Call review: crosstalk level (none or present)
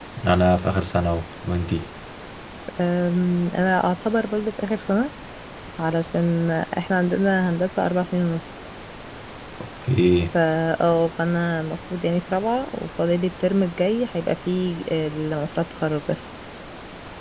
none